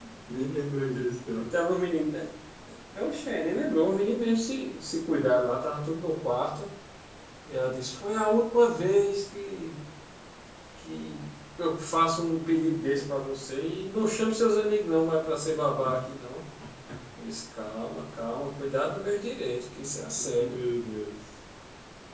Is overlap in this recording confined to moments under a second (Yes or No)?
Yes